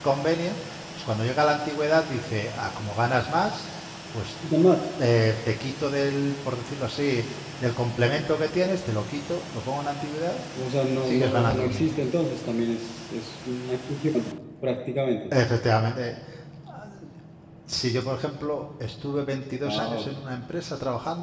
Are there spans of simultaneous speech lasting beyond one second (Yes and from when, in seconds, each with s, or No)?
Yes, from 10.6 s